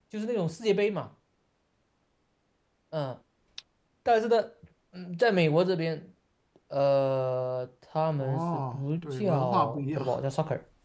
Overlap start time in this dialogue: 8.2 s

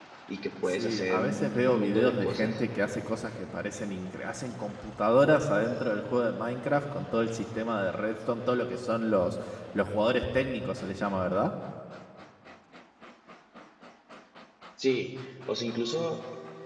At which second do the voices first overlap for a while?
0.7 s

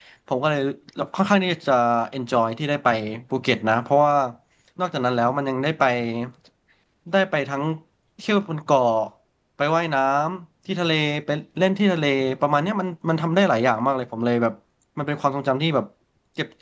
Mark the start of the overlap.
none

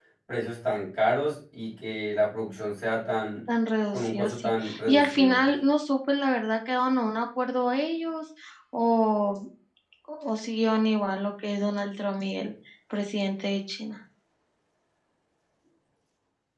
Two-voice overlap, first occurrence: 3.9 s

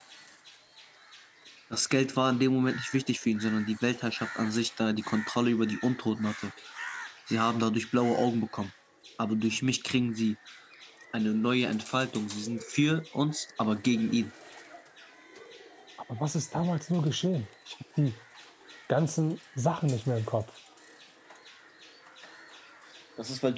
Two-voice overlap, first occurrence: none

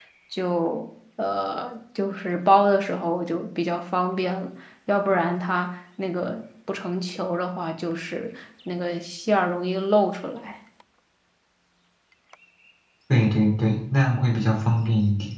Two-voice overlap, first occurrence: none

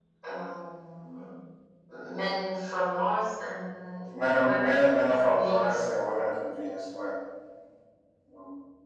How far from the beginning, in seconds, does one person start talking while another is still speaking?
4.1 s

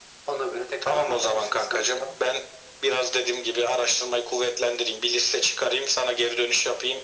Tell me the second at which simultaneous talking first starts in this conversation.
0.8 s

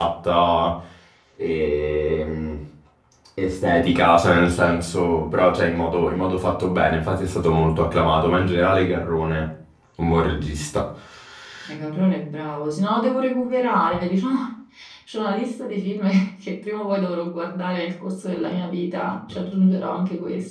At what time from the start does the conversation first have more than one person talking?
none

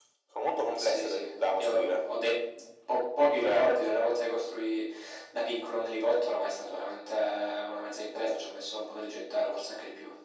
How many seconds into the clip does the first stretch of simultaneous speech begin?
0.8 s

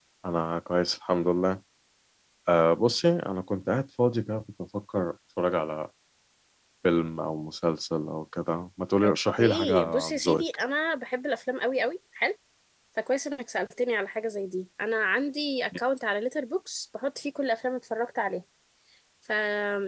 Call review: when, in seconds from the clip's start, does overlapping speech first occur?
9.0 s

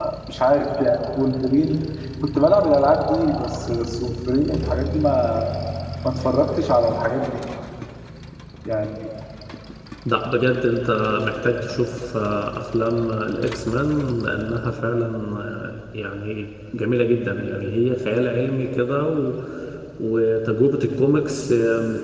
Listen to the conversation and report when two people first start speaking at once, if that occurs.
none

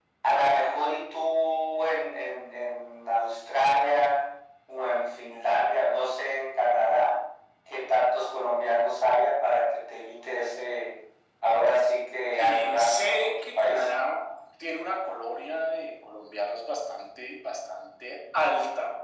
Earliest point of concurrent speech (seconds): 12.4 s

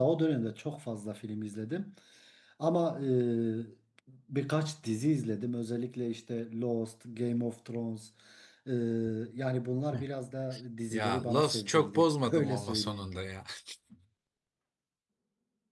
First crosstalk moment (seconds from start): 10.9 s

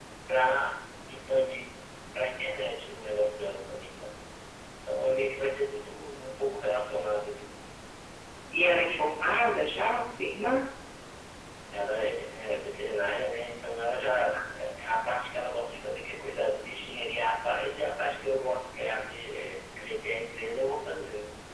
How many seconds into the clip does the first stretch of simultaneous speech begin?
none

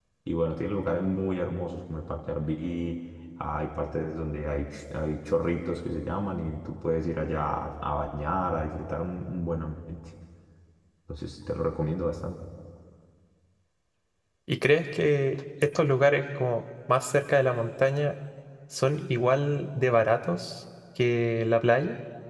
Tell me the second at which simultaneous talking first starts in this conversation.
none

